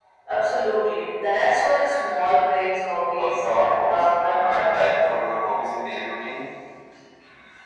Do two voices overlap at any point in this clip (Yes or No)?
Yes